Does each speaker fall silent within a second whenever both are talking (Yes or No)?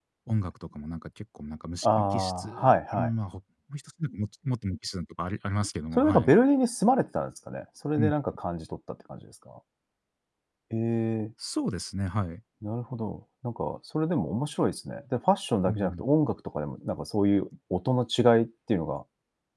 No